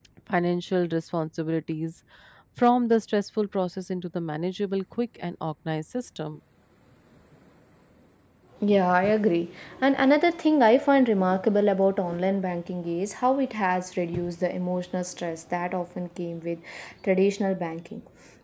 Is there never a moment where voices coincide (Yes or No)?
Yes